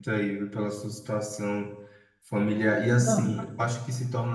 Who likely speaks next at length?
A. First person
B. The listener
A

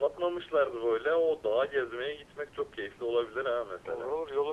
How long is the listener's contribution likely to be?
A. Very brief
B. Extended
B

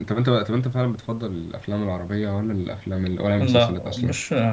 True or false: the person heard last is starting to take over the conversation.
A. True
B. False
A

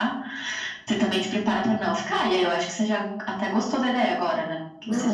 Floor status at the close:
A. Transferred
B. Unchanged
A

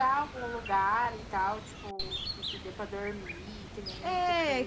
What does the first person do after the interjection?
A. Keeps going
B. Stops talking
B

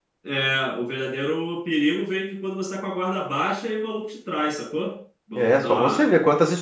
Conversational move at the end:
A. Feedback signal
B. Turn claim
B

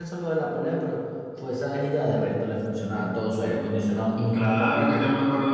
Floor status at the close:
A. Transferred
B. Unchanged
A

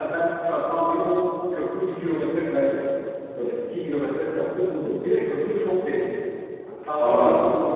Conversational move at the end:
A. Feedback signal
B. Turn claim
A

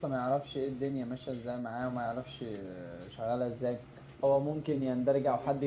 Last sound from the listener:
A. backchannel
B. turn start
A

